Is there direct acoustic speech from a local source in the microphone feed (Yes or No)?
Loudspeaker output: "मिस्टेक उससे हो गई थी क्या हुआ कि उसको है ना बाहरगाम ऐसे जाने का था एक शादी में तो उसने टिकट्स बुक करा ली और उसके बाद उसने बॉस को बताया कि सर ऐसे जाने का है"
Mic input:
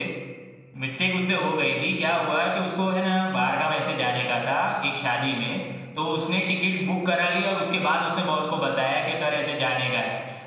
No